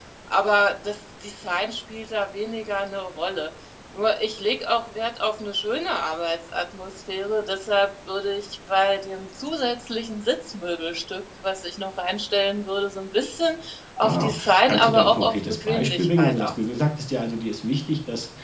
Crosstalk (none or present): present